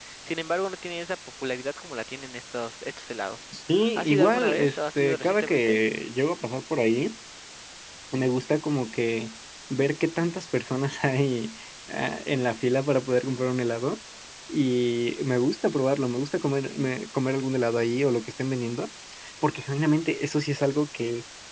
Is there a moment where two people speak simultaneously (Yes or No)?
Yes